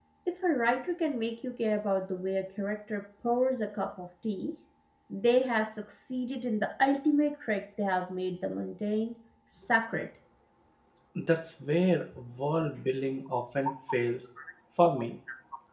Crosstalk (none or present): none